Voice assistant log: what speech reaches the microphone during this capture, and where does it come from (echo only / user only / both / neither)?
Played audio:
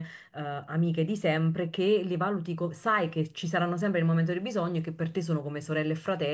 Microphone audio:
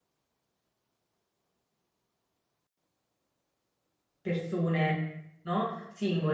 user only